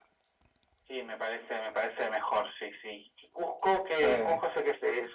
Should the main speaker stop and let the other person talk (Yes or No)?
No